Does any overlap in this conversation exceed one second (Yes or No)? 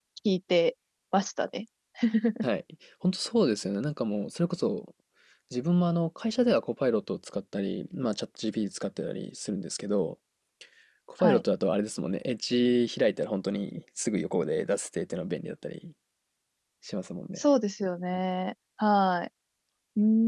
No